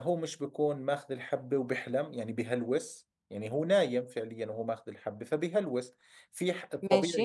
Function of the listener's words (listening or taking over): listening